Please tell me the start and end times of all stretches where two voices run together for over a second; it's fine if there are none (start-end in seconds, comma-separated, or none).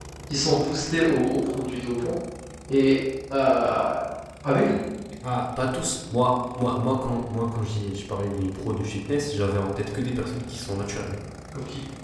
none